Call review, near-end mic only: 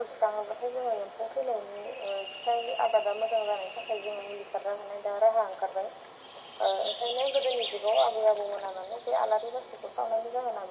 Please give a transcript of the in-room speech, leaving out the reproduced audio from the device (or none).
none